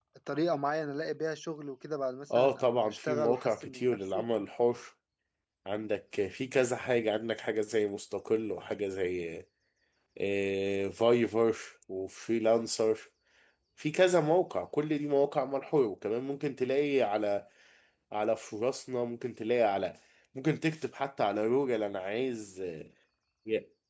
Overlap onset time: 2.3 s

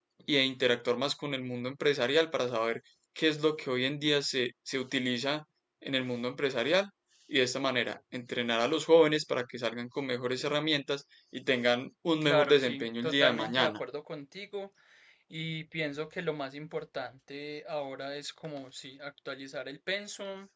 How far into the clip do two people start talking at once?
12.2 s

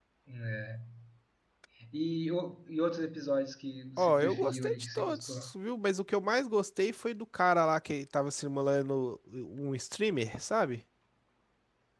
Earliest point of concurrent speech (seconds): 4.0 s

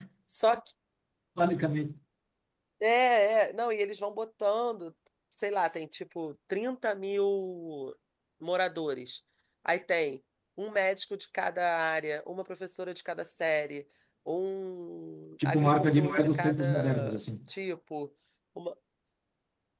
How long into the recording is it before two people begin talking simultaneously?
15.4 s

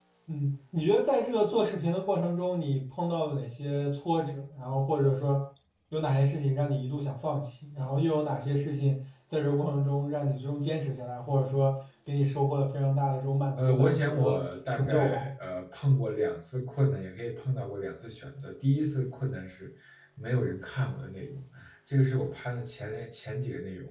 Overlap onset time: 13.6 s

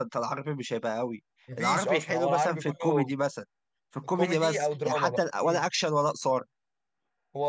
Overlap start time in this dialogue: 1.6 s

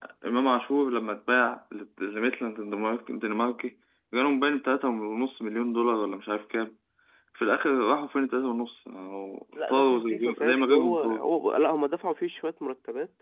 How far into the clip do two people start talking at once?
9.6 s

